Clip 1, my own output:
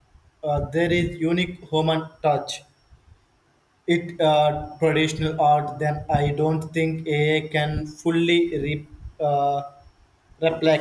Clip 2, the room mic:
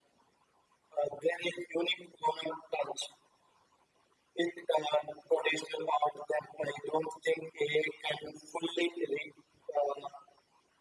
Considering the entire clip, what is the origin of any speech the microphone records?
echo only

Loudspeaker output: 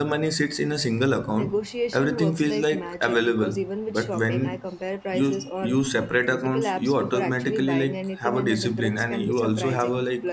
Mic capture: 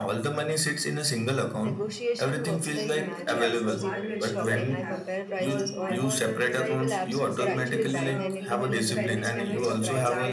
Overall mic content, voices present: both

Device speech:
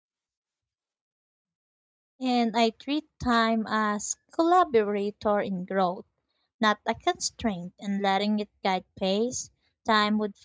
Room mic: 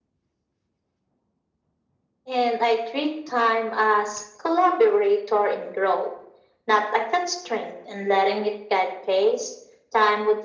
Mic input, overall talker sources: echo only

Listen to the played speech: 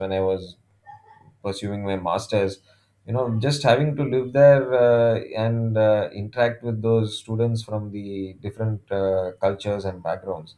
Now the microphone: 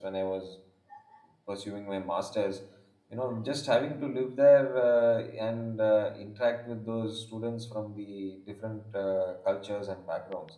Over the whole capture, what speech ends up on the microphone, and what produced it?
echo only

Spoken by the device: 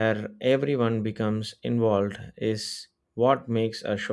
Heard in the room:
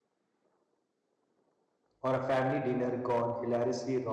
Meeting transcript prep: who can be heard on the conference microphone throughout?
user only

